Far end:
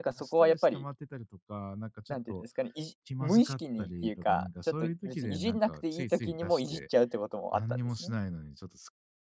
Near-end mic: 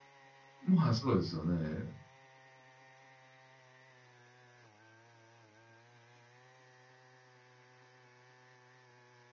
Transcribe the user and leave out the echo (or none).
まあ、そうですよね。